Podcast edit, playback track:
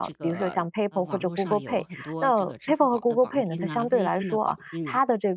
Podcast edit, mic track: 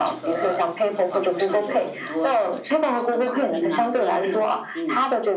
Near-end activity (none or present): none